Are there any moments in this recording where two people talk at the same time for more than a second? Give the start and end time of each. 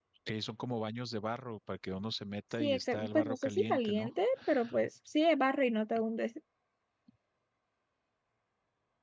2.6-4.1

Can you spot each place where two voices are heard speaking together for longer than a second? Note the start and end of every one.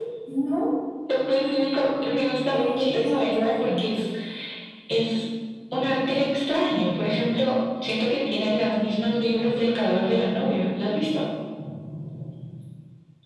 2.5-3.8

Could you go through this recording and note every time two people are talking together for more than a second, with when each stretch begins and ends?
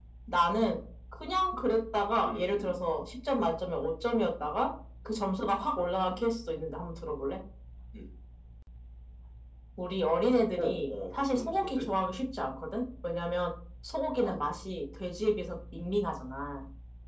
10.6-11.8

